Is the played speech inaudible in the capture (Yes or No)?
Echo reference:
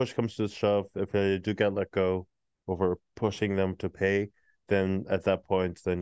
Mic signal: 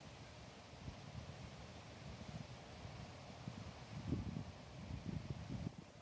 Yes